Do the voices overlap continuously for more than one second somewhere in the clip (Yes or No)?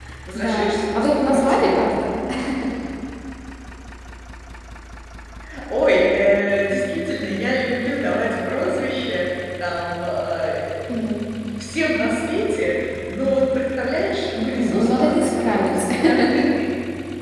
Yes